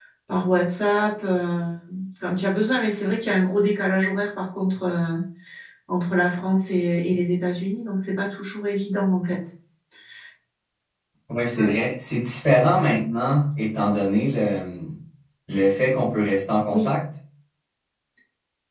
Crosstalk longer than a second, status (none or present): none